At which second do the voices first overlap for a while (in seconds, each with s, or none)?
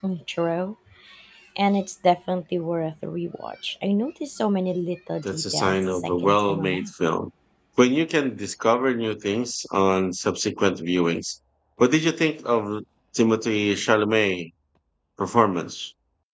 5.2 s